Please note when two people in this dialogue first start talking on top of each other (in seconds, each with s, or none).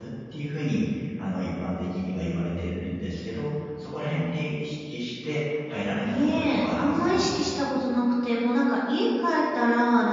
6.0 s